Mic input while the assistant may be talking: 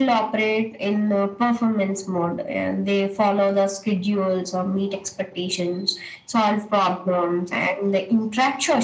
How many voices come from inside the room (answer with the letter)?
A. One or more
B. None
B